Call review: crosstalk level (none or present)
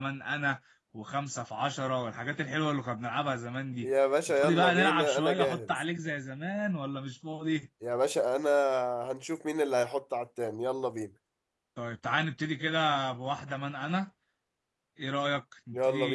present